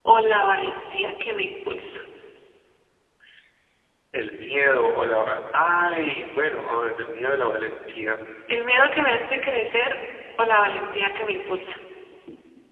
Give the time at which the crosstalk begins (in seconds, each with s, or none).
none